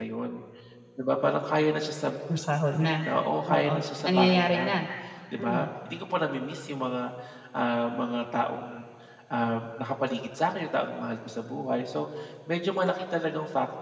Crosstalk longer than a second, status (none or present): present